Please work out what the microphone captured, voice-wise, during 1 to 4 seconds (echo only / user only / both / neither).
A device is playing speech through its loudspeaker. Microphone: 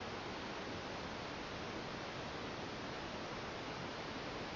neither